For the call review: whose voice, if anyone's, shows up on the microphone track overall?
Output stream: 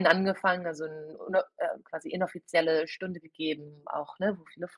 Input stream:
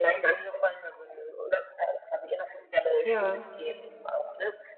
both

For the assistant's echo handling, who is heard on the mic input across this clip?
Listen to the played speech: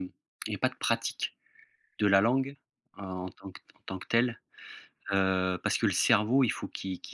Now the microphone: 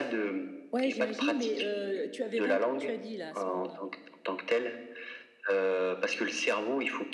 both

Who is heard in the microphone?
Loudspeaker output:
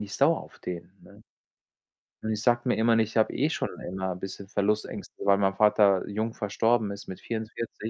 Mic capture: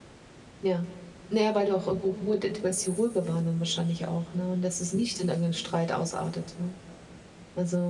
user only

